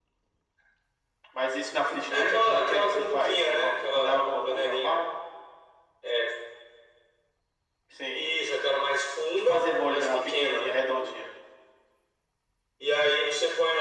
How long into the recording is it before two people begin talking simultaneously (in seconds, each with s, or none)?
2.1 s